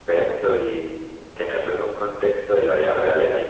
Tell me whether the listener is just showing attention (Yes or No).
Yes